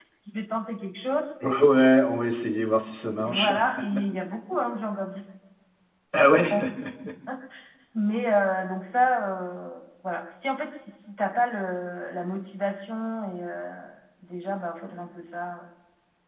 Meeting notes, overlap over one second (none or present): none